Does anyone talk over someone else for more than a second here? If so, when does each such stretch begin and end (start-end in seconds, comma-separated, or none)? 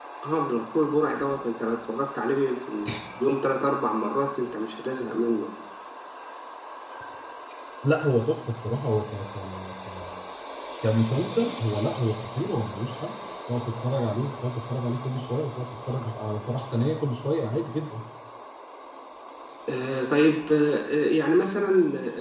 none